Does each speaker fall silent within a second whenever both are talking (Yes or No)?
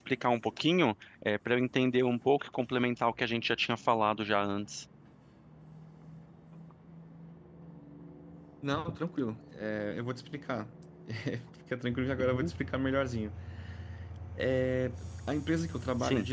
Yes